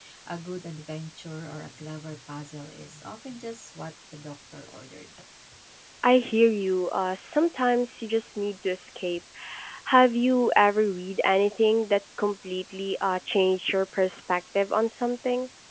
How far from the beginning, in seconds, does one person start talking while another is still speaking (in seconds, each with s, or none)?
none